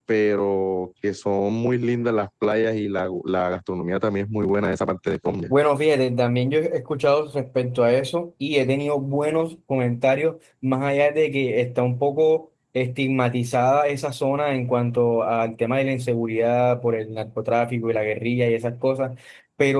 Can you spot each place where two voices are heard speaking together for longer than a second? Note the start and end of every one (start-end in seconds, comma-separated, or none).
none